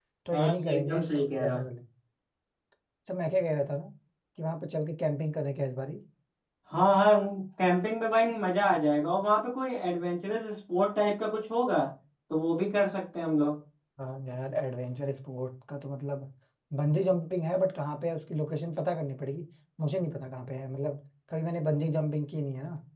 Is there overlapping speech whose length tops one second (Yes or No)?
Yes